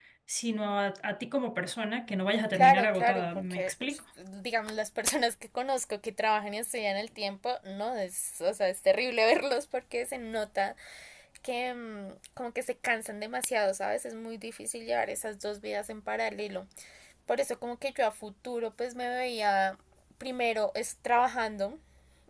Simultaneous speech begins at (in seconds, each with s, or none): 2.5 s